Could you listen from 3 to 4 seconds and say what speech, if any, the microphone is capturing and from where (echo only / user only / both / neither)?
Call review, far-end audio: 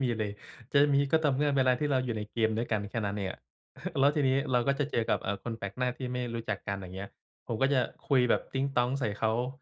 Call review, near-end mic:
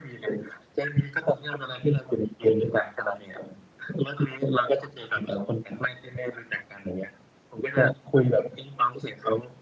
echo only